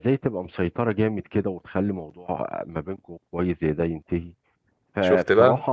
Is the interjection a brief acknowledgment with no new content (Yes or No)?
Yes